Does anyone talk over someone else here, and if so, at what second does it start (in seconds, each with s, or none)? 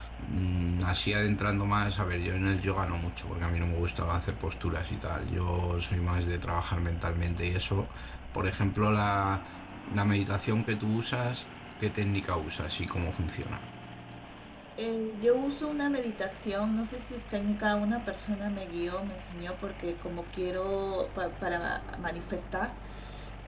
none